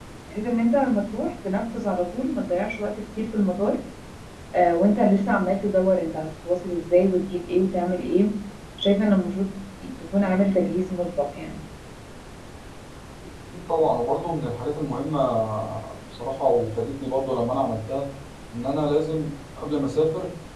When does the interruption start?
none

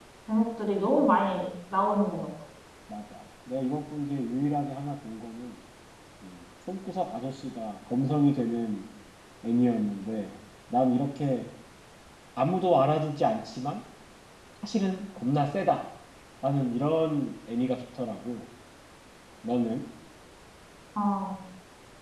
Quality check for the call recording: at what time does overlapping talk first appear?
none

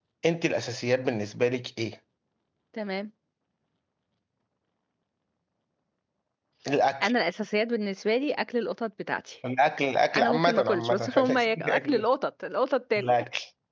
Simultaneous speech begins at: 10 s

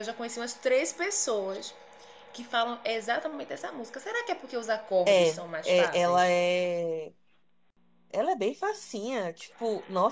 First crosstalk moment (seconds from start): 5 s

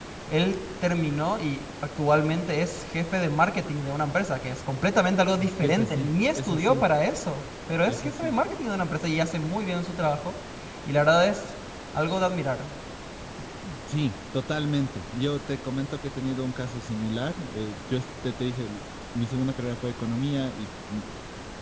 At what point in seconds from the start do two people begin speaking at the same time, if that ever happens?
5 s

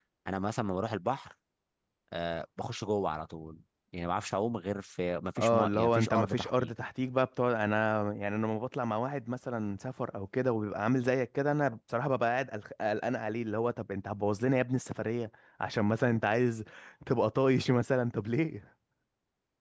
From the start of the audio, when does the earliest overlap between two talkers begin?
5 s

